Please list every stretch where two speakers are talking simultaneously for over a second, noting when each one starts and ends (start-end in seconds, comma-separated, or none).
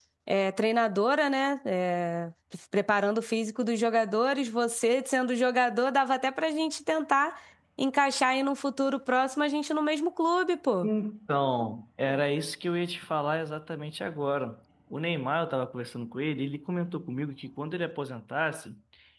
none